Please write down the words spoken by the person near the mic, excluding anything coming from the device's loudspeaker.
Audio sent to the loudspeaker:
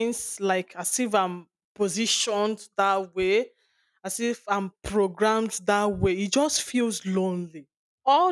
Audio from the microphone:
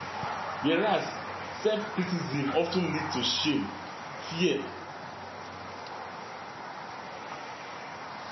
Whereas self-criticism often lead to shame, fear,

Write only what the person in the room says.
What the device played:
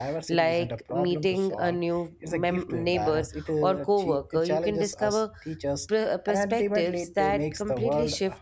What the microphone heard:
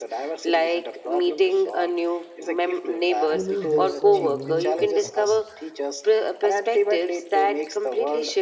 you lose those uh, unique perspectives.

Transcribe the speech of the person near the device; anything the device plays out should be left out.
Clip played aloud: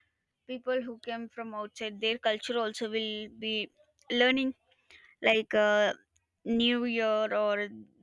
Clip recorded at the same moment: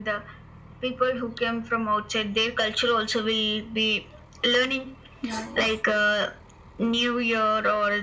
yeah

